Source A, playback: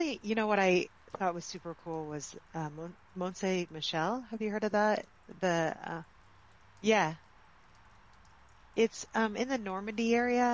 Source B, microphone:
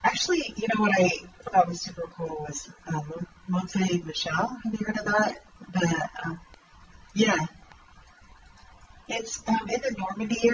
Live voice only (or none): none